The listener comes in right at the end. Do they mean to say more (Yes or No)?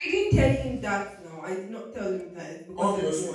Yes